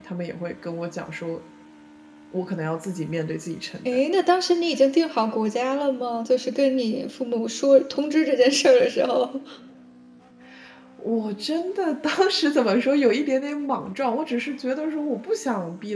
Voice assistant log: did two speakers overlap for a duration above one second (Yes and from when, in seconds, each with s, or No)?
No